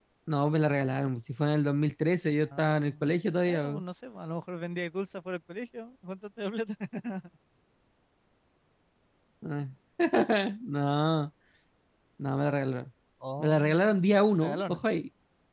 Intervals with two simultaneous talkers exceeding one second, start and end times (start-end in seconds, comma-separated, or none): 13.4-14.8